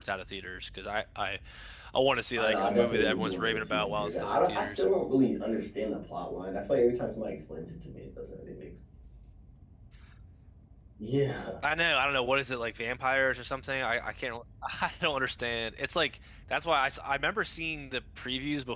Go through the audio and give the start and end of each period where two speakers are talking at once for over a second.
2.4-4.8

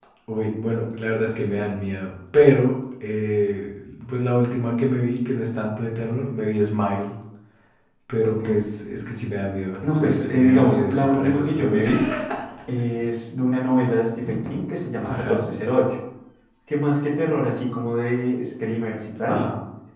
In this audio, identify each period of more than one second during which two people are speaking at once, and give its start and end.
9.9-11.8

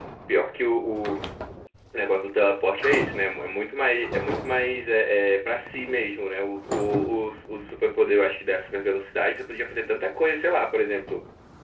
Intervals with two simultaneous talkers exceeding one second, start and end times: none

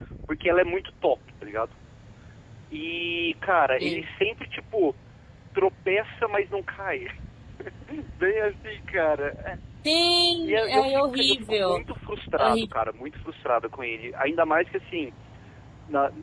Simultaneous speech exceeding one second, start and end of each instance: 10.4-11.8

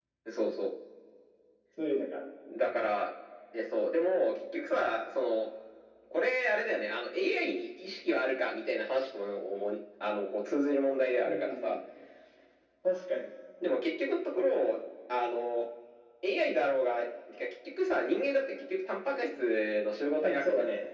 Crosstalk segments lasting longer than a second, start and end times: none

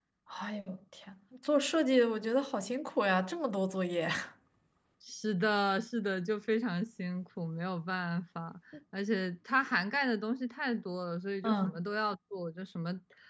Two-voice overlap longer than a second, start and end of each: none

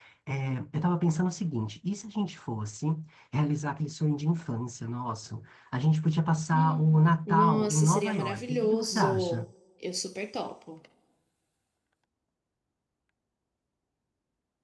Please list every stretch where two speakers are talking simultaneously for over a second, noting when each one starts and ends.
6.5-9.4

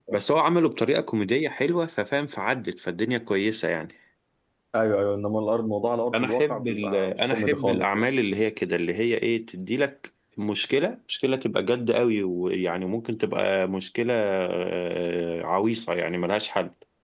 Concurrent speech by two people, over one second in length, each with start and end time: 6.1-8.0

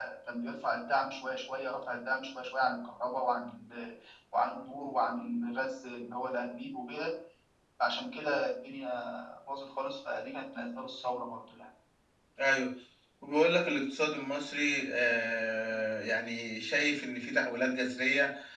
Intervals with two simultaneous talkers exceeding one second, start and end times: none

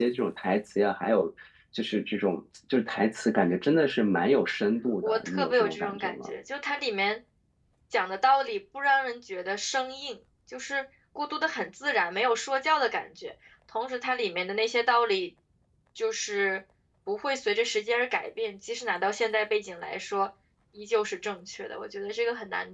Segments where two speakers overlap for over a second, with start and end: 5.0-6.3

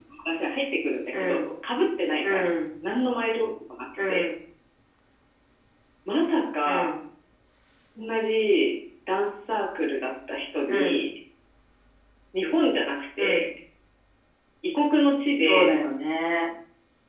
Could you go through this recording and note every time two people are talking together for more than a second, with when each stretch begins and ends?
none

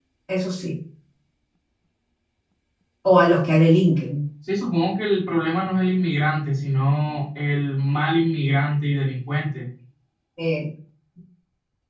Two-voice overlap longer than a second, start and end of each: none

